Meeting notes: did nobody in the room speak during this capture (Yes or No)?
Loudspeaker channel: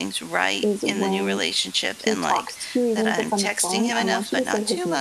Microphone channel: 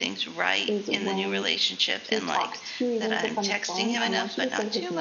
Yes